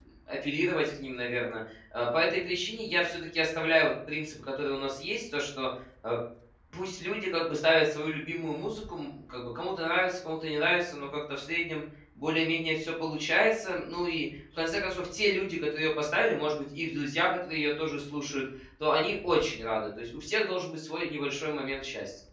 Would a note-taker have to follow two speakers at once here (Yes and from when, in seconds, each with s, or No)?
No